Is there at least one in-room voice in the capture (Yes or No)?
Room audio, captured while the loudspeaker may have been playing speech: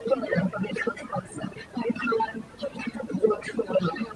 No